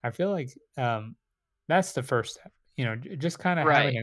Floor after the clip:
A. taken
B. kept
B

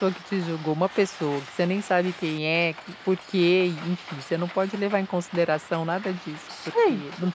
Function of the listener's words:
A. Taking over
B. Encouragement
B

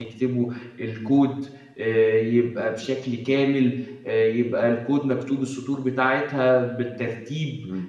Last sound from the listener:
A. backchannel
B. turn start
B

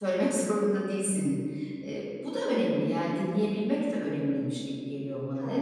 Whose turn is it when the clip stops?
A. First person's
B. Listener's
B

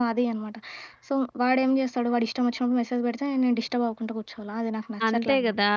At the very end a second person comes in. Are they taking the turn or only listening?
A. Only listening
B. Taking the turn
B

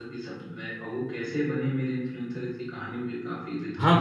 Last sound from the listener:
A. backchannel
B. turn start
B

